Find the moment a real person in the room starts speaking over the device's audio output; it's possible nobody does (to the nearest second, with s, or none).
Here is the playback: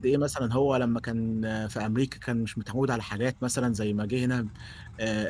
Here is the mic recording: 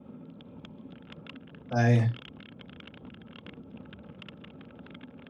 2 s